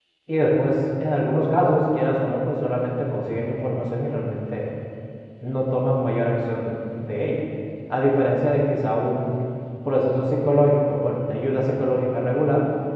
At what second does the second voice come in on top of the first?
none

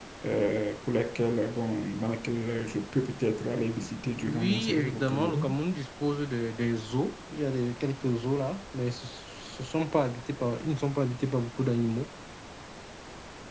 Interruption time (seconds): 4.1 s

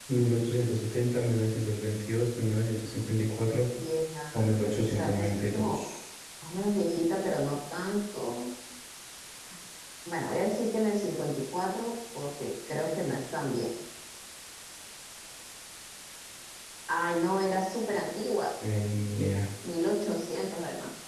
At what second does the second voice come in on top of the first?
4.3 s

